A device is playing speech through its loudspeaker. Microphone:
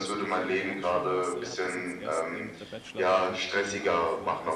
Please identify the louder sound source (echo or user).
echo